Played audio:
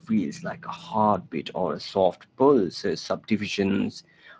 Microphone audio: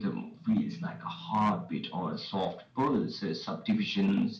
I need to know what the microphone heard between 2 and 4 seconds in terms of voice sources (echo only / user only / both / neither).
echo only